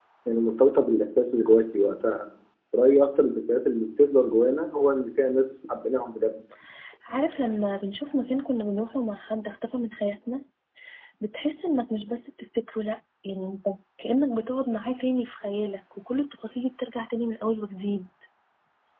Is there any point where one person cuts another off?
No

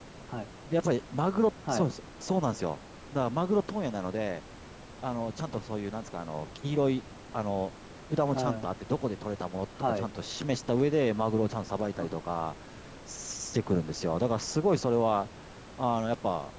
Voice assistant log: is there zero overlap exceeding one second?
Yes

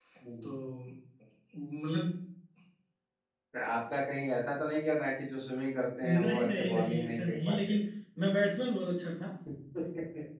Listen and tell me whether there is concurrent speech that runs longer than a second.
Yes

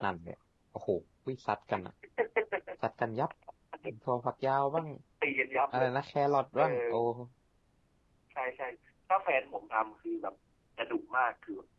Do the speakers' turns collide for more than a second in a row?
No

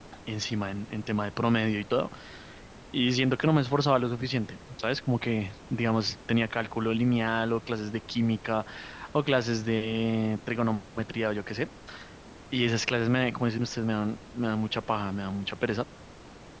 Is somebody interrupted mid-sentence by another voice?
No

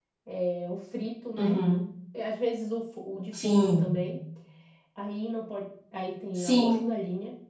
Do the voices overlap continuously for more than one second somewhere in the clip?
No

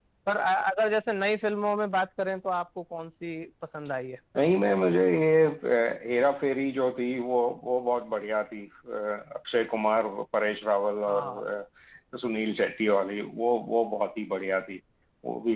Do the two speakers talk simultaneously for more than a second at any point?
No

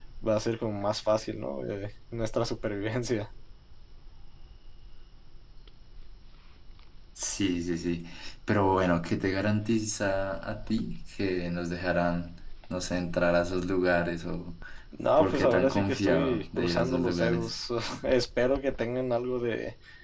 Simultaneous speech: Yes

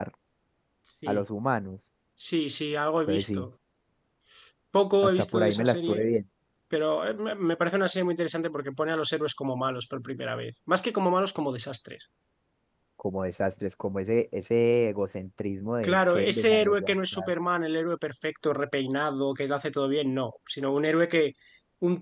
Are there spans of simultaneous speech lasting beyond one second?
Yes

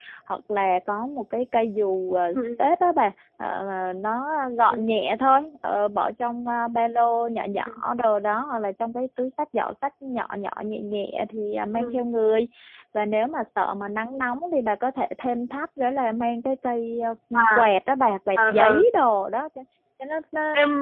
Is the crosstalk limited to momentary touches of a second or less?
Yes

